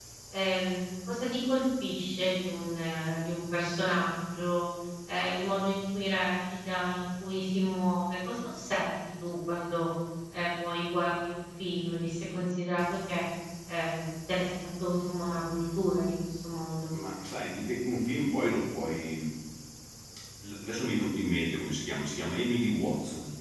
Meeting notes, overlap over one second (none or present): none